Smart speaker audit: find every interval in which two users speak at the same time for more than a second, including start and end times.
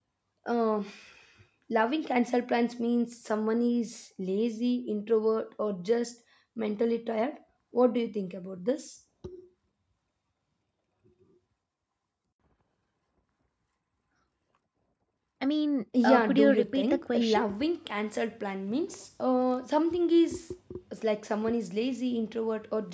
16.0-17.4

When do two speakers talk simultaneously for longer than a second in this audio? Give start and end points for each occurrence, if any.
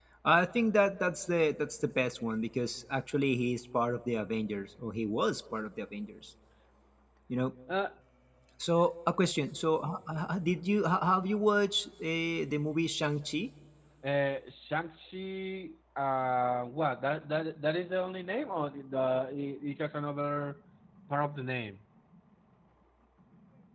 none

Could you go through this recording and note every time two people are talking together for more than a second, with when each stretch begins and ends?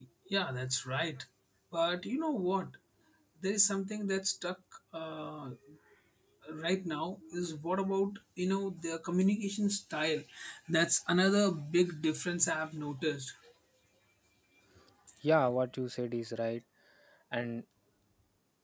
none

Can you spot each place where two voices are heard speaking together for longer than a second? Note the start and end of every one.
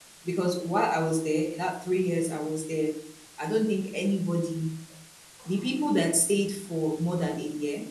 none

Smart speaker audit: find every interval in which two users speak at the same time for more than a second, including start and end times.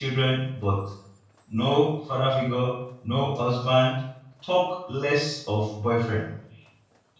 none

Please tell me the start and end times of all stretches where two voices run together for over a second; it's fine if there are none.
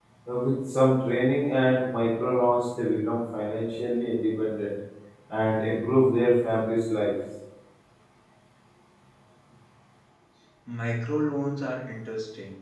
none

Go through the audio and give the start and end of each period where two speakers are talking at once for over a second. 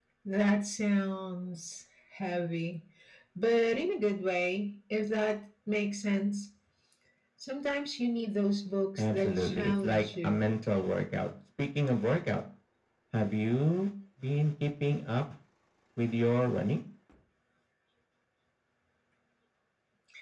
9.0-10.4

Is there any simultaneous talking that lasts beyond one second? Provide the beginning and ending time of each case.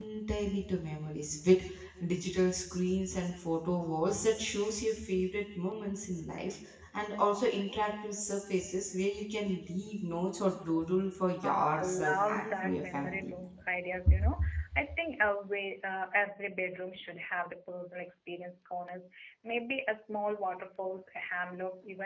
11.4-13.3

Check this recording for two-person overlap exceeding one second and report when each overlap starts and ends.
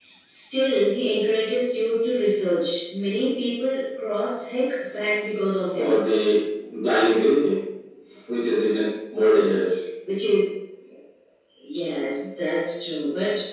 none

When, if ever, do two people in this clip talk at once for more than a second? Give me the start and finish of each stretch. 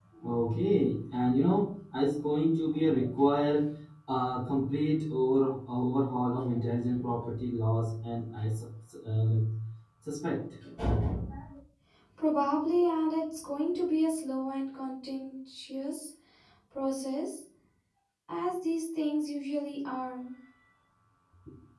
none

